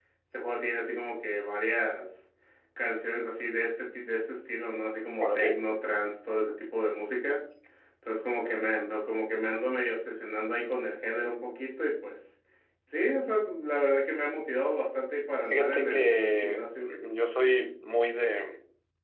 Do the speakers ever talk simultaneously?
Yes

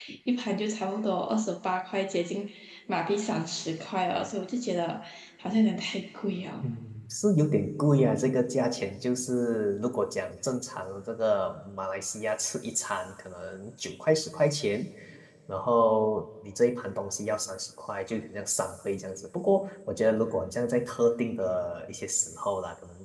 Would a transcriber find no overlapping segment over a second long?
Yes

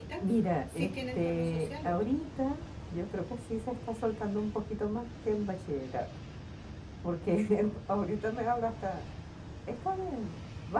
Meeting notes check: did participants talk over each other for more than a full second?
Yes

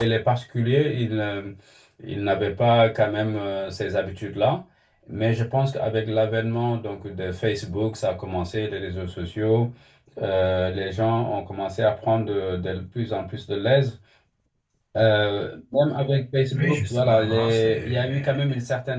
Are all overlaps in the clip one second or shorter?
No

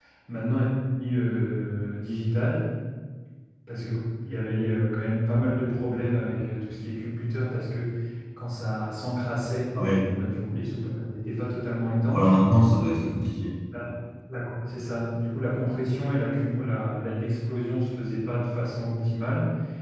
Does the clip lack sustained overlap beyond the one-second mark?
Yes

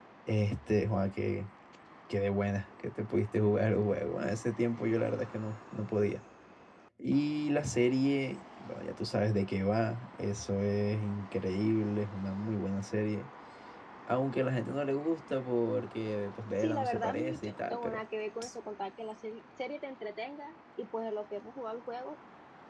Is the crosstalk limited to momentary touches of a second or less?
No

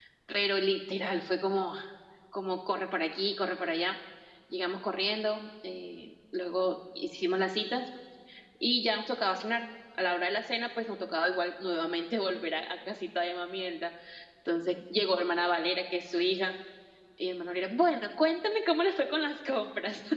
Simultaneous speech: No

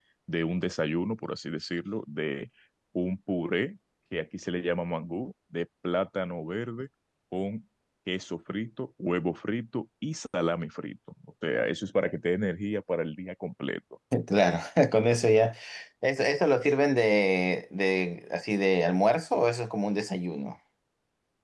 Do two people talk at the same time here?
No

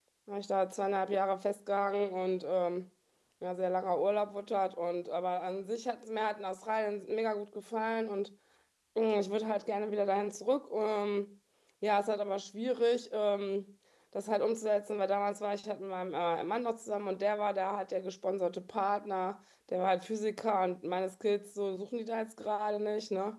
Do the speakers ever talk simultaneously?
No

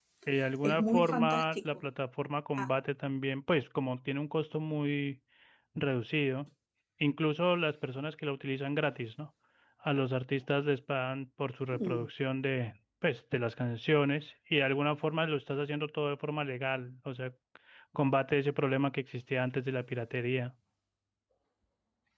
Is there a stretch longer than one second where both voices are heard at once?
Yes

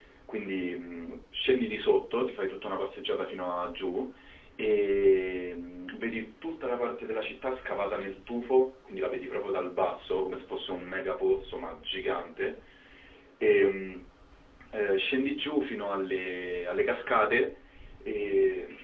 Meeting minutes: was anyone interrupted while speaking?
No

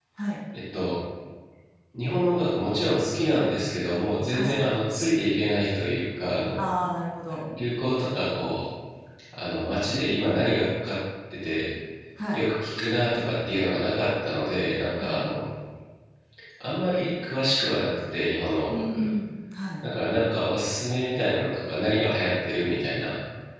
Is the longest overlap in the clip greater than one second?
No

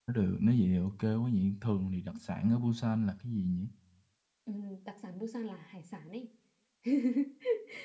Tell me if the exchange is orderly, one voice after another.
Yes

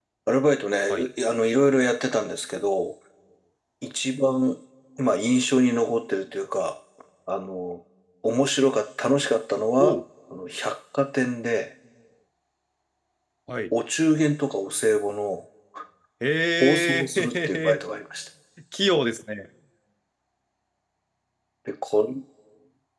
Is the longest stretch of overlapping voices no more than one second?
No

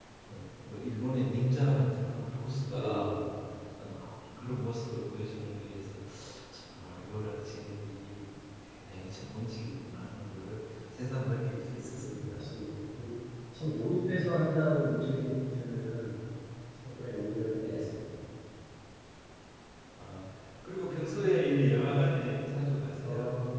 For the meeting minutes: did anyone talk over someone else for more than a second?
No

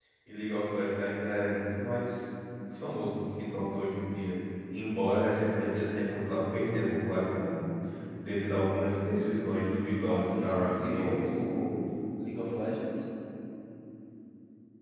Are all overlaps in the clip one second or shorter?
No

